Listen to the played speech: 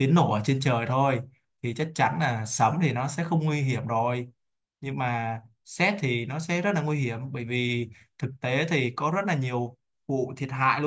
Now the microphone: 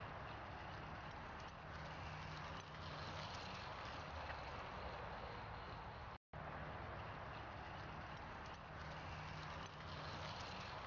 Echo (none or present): none